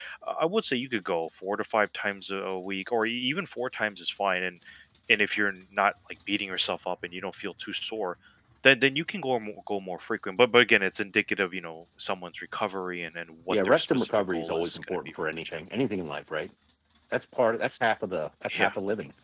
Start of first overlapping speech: 13 s

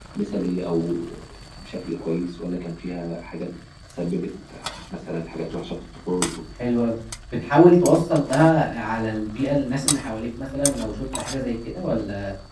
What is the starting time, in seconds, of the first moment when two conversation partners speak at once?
none

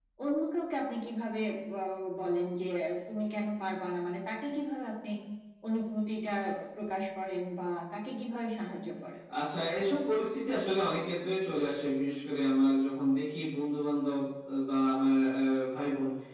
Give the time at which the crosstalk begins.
none

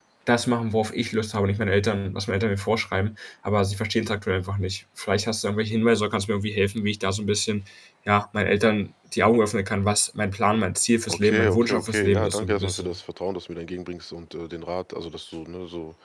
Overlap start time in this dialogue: 11 s

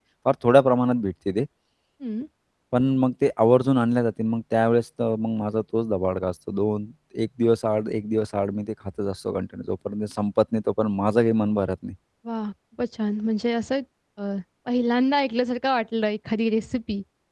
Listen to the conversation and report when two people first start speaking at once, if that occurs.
none

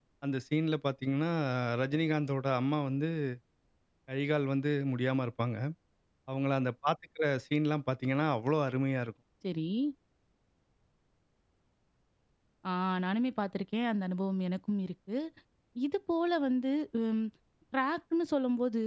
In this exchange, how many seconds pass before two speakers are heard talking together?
none

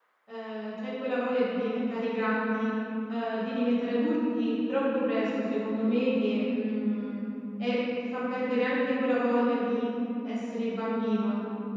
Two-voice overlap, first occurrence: none

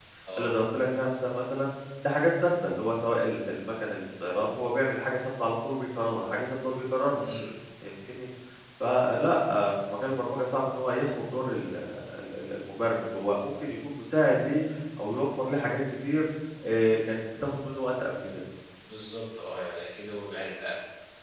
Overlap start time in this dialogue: none

